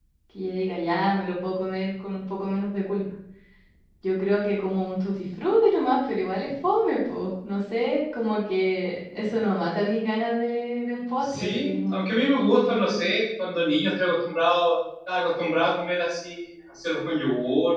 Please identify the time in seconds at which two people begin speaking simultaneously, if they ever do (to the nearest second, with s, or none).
11 s